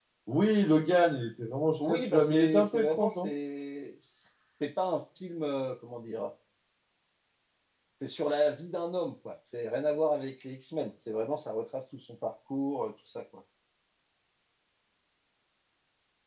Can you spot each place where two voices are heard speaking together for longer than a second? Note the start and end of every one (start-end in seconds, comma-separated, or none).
1.8-3.3